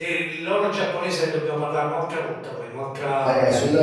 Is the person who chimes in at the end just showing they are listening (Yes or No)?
No